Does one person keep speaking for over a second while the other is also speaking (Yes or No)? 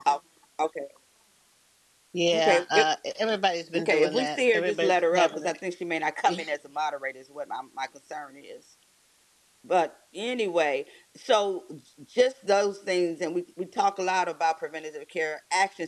Yes